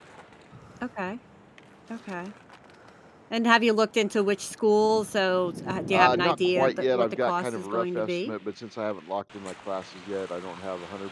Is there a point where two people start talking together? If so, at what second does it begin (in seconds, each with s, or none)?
5.9 s